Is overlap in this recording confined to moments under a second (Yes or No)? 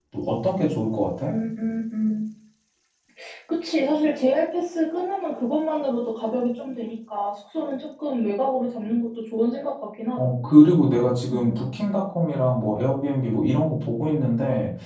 Yes